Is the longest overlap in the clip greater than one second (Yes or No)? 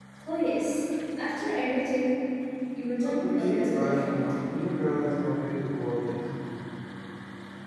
Yes